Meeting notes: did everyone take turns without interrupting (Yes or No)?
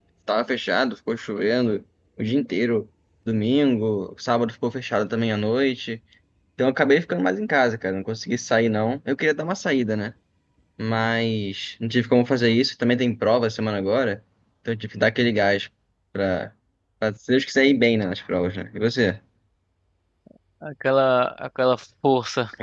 Yes